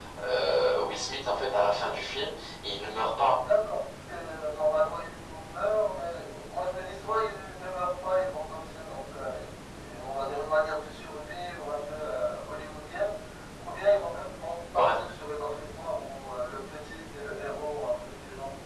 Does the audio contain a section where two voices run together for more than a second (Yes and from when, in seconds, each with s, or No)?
No